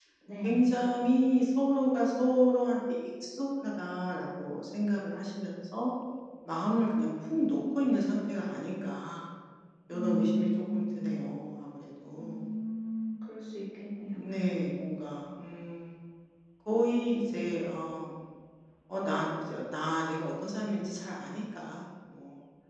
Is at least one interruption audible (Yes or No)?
Yes